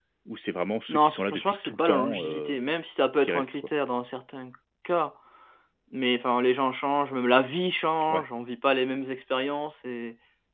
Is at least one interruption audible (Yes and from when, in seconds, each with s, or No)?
Yes, from 0.9 s